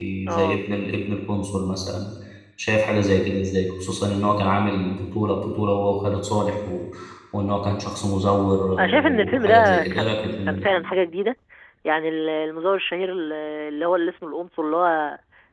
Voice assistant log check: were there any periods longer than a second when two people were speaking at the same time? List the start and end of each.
8.8-10.7

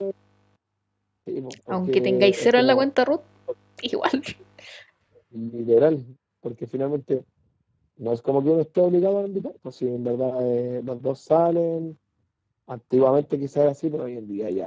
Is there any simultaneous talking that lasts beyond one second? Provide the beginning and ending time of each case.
1.7-2.9

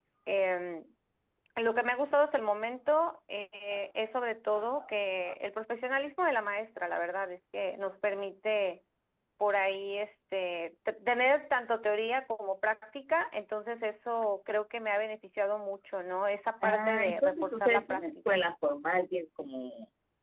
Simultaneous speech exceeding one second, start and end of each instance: 16.6-18.4

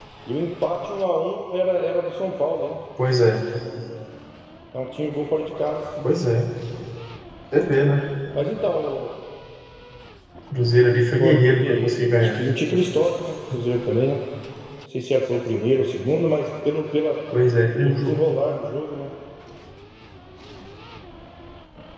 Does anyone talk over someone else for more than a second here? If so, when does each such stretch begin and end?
11.2-12.4

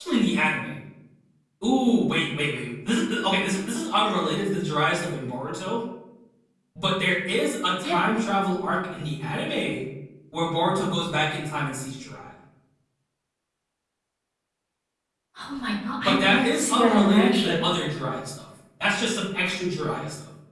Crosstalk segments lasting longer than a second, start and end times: 16.0-17.6

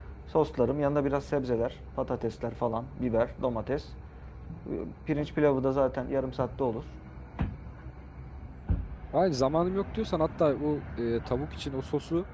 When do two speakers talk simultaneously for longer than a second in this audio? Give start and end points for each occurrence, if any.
none

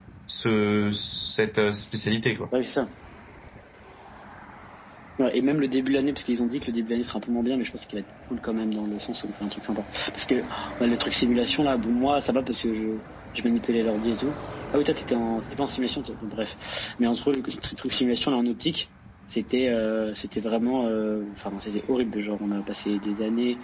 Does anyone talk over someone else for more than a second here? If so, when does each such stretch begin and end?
none

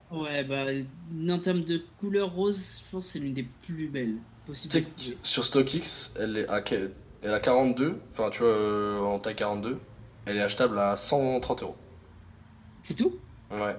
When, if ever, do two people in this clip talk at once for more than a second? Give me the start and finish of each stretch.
none

